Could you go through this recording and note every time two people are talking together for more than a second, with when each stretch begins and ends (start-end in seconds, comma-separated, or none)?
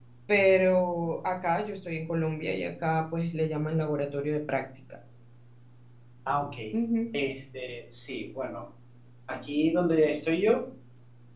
none